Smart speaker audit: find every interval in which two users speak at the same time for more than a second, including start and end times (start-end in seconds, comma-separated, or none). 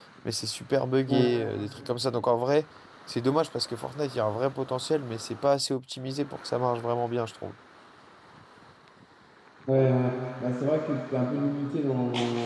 none